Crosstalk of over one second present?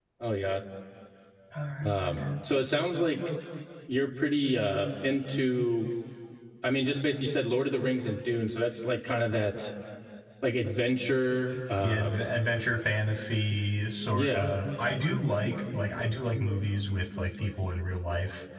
No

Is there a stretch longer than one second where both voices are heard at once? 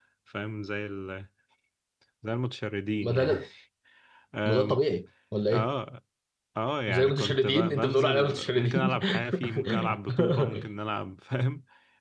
Yes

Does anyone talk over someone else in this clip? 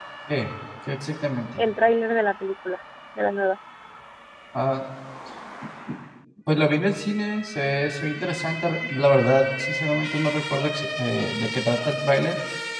No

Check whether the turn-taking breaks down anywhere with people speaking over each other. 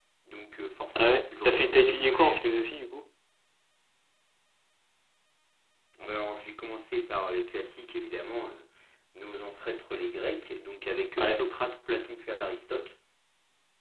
Yes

